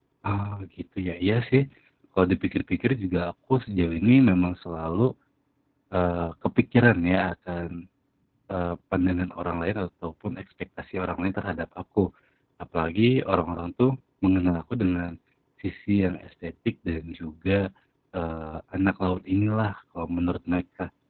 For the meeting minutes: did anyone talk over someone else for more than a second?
No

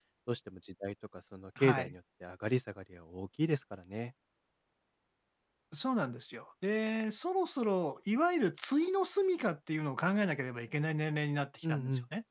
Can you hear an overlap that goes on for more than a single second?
No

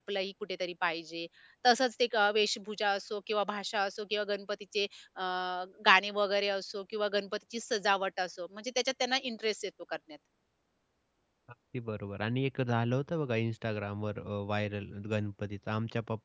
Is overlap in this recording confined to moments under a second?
Yes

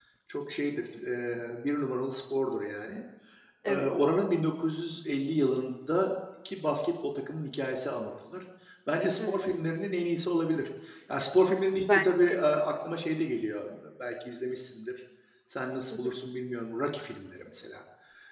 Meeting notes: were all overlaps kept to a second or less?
Yes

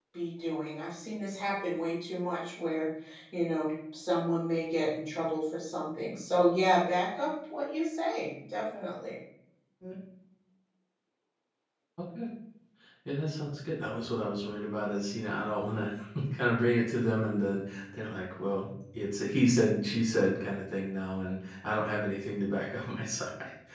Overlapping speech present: No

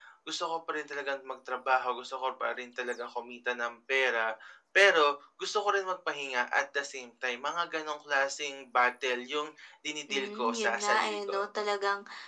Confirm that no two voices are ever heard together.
No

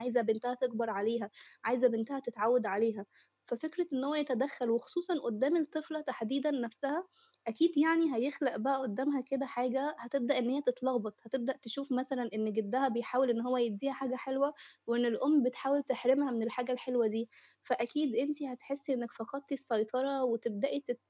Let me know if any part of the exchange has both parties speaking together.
No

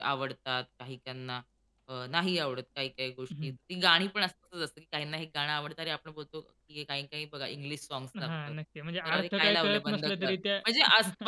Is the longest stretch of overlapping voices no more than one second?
No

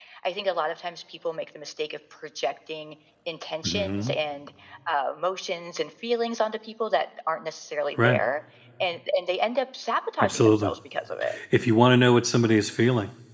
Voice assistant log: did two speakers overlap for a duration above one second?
No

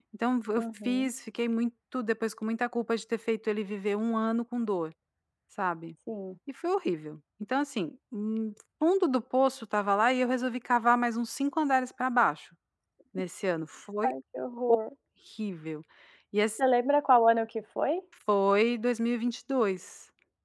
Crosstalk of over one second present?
No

